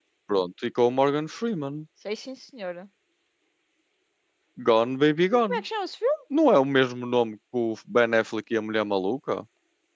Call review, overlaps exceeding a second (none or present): none